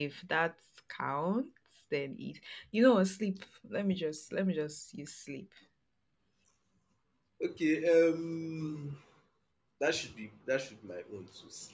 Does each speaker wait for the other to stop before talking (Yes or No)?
Yes